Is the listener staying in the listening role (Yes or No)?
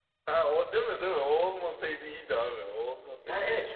No